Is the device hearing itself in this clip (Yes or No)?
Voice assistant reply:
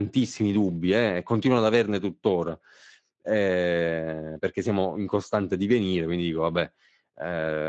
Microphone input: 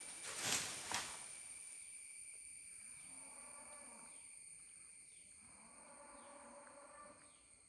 No